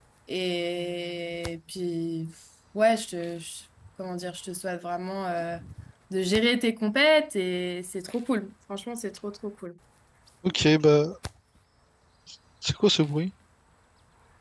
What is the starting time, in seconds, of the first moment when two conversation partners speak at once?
none

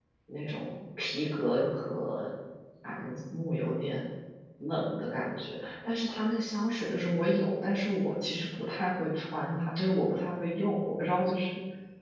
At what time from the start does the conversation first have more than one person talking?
none

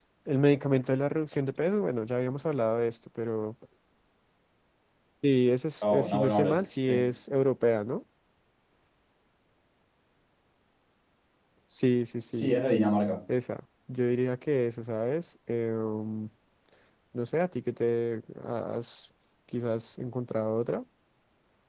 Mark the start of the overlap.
6 s

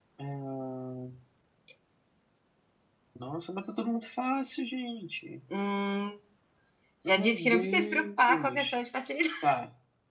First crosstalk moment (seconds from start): 7 s

